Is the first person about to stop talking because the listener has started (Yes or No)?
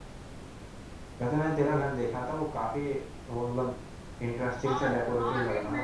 Yes